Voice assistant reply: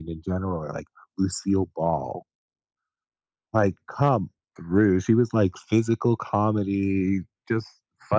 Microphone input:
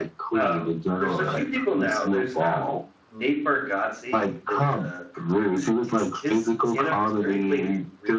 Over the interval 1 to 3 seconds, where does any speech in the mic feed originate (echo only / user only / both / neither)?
both